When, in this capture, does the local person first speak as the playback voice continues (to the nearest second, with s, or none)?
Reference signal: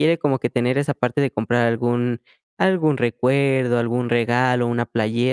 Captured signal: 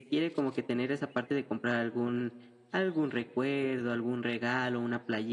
none